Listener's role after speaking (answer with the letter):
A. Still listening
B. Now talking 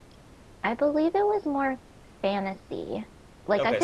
B